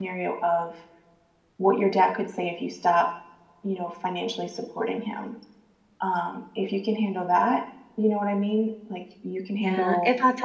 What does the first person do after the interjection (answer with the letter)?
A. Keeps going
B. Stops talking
B